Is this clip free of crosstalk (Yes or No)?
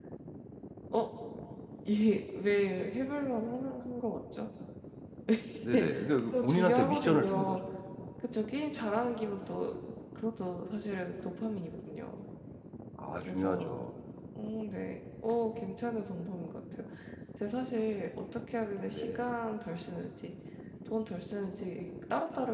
No